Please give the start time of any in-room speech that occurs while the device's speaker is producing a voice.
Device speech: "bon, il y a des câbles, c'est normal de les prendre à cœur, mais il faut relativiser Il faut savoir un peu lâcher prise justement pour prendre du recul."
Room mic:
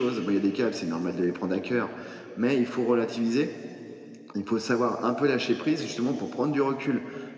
none

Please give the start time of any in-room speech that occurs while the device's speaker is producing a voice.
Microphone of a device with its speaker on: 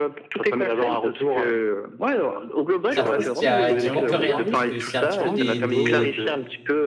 2.9 s

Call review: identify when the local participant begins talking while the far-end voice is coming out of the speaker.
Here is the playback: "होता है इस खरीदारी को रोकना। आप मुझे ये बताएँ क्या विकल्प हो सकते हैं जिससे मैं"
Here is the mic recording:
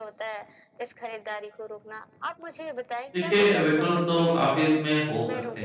3.1 s

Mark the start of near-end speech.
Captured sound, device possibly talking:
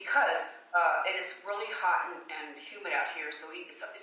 none

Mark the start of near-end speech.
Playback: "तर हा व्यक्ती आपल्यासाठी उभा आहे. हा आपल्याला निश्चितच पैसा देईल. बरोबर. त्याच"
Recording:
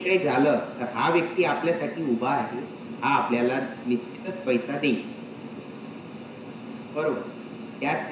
none

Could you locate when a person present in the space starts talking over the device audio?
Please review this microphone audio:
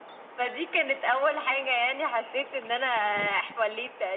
none

